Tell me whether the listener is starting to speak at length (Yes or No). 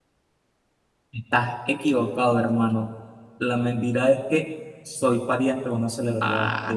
Yes